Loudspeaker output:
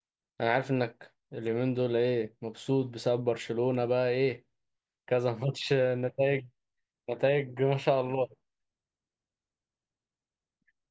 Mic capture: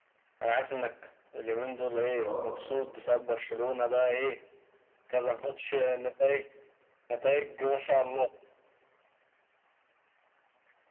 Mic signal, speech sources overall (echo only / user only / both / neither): both